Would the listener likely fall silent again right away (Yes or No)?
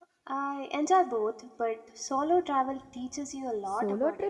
No